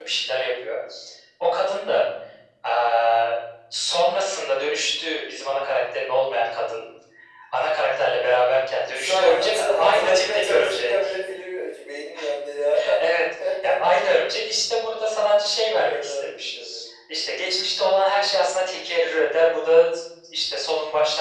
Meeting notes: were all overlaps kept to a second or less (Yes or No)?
No